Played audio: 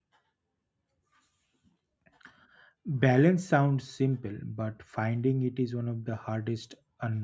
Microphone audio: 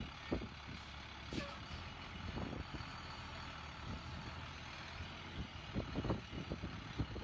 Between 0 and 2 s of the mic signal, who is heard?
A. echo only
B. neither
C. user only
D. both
B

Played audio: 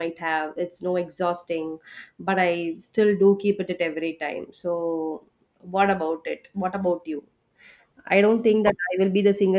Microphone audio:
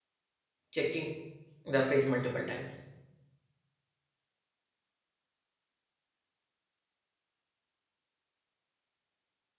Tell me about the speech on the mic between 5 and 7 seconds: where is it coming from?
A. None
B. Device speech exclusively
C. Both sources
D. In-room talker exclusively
A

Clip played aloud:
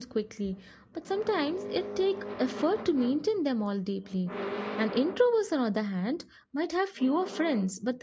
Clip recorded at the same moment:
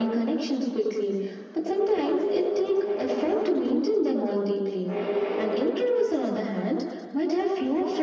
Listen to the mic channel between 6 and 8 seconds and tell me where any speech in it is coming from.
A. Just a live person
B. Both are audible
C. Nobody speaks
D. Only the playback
D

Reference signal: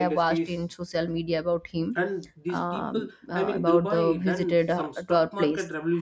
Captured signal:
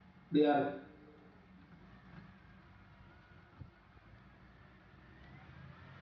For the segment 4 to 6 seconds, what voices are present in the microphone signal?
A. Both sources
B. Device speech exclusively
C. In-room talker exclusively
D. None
D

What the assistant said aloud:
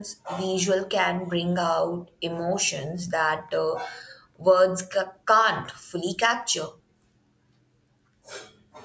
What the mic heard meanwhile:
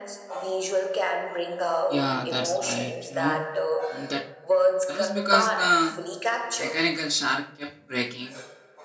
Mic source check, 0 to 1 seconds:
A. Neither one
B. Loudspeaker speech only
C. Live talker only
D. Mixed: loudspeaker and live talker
B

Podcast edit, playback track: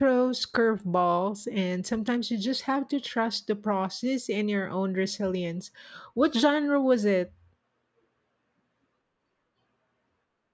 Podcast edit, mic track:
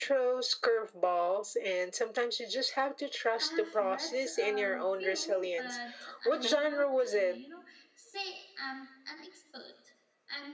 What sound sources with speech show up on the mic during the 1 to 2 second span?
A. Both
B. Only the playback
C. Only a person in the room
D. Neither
B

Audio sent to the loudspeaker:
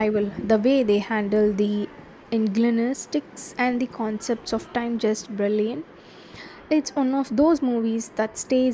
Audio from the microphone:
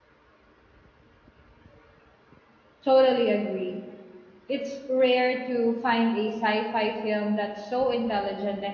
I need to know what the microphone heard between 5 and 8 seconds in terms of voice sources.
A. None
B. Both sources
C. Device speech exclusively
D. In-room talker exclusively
D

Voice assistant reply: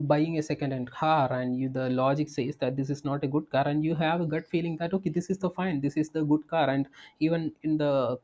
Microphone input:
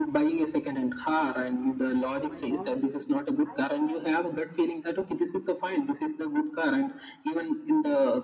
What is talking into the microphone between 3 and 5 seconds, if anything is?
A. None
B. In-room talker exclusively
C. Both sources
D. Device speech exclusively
C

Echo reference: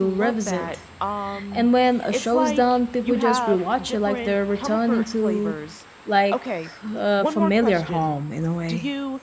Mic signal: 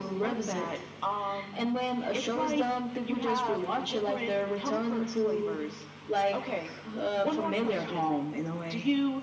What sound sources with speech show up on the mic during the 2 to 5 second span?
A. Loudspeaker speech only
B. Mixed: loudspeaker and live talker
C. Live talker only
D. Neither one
A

